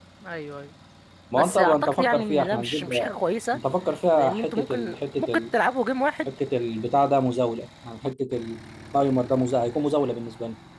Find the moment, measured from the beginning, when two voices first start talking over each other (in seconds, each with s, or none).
1.3 s